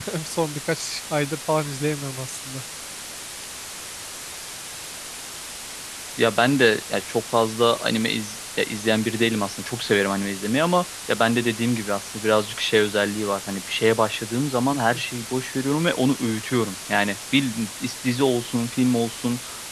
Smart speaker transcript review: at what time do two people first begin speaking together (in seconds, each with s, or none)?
none